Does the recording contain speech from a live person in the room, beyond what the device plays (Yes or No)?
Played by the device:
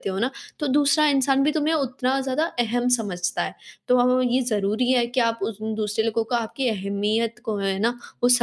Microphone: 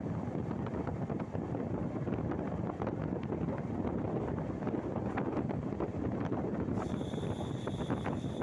No